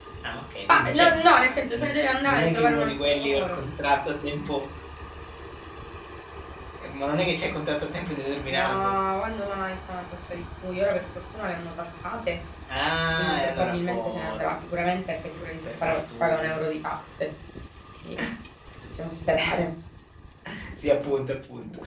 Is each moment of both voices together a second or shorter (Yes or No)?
No